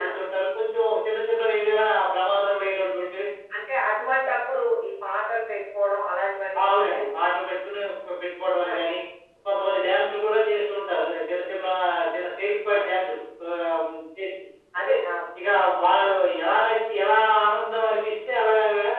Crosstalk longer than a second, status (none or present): none